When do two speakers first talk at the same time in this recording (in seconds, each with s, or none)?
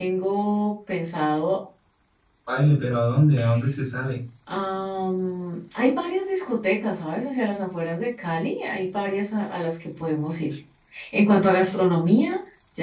none